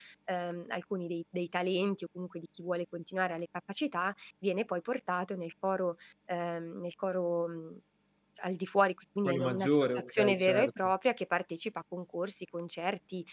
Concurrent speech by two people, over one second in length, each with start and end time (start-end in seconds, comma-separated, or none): 9.2-10.7